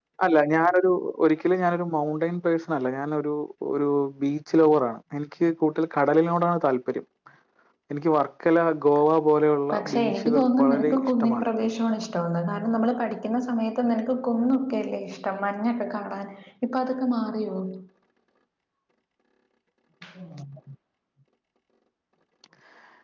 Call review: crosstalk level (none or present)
present